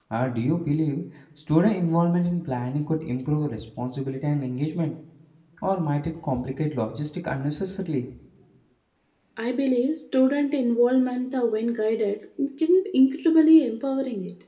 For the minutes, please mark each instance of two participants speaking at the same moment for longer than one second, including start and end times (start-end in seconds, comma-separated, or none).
none